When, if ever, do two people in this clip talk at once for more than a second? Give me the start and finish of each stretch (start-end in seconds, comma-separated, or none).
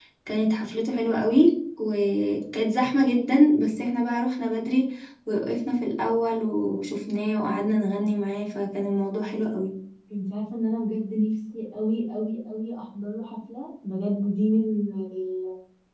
none